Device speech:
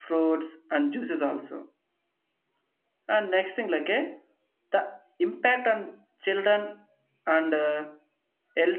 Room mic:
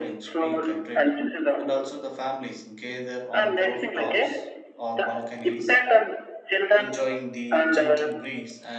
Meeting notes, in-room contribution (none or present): present